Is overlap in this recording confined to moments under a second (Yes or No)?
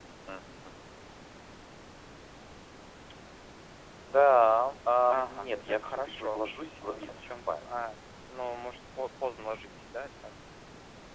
No